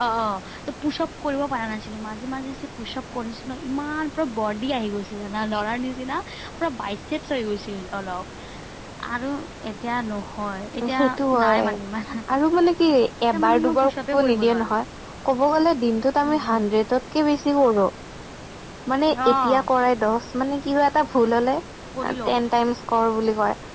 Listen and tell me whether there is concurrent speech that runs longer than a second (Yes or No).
Yes